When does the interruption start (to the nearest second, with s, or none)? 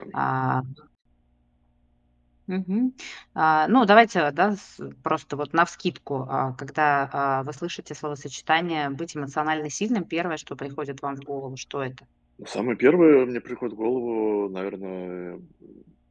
none